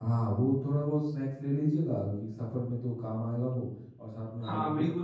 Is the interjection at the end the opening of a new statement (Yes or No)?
Yes